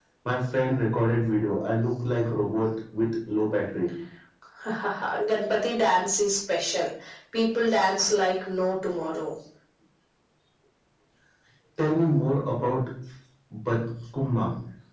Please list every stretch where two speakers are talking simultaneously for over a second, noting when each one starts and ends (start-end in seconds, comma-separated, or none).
none